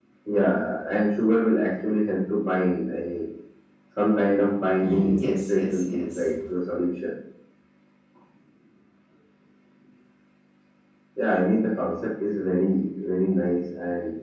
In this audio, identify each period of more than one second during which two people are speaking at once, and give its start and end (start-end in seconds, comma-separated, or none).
4.8-6.3